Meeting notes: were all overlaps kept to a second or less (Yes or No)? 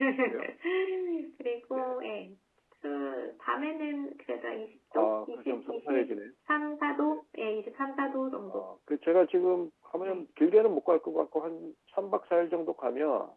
No